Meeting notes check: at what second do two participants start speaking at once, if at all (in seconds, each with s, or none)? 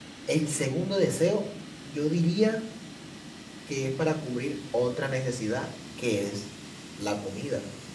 none